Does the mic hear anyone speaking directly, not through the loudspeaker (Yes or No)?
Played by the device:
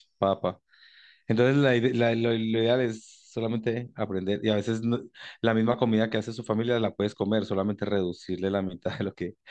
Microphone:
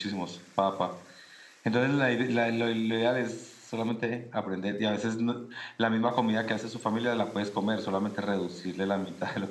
No